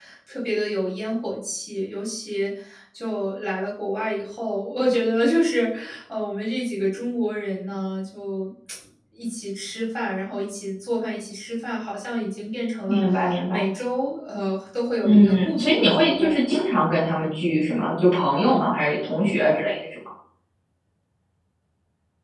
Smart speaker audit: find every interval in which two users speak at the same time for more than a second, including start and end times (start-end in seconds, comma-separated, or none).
15.0-16.5